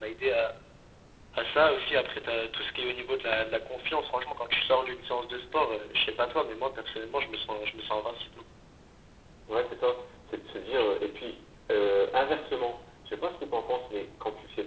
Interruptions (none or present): none